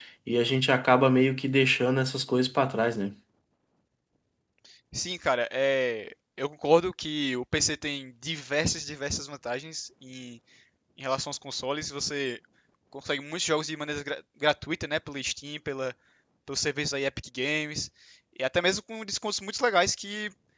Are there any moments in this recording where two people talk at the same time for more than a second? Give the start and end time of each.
none

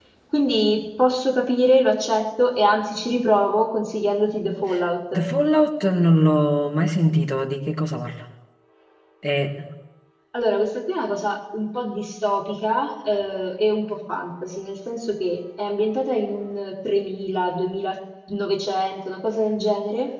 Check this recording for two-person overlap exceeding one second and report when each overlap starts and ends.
none

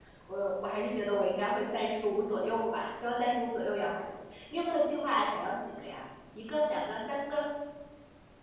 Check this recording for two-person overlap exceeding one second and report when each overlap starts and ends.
none

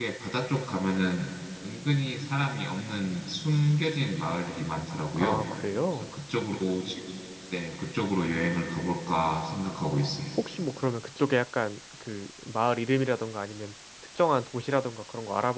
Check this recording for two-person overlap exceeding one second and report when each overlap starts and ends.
none

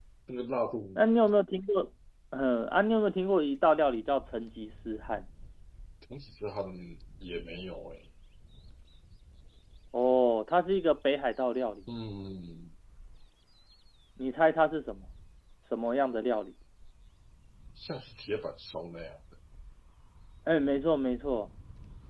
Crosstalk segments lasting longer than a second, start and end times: none

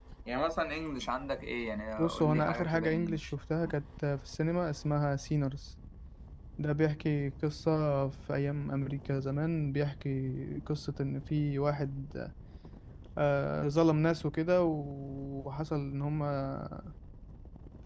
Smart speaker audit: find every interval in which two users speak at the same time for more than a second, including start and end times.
2.0-3.3

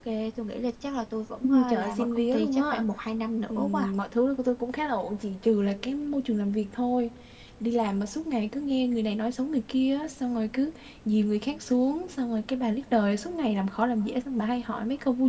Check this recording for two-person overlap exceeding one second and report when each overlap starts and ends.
1.4-2.8

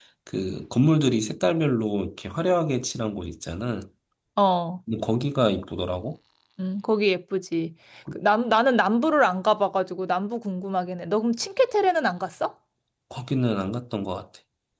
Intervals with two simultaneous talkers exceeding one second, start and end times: none

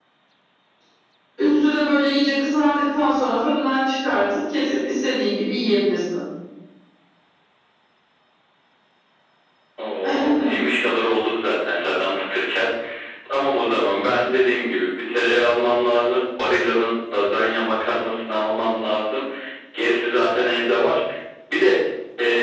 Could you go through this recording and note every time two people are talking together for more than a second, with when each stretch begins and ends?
none

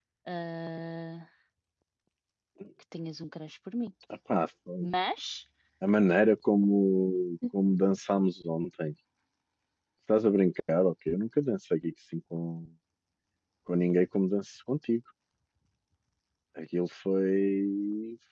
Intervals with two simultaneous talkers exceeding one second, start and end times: none

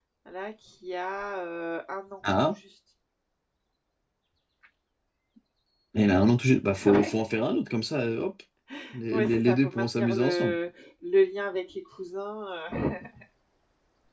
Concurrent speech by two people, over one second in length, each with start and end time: 9.1-10.5

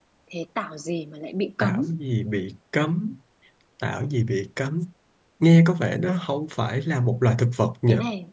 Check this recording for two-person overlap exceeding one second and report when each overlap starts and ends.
none

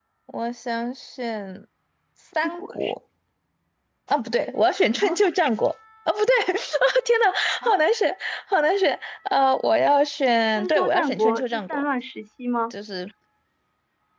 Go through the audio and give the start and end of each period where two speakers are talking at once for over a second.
10.6-11.8

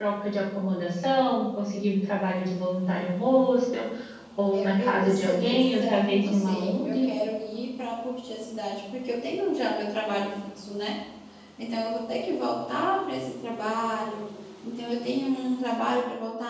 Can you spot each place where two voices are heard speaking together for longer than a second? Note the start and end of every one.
4.5-7.1

